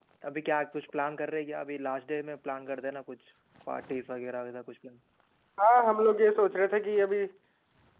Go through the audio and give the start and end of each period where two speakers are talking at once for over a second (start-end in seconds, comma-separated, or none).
none